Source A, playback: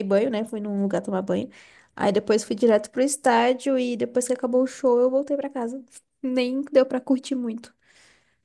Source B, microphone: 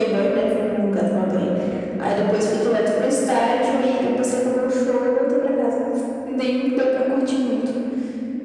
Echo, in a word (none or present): present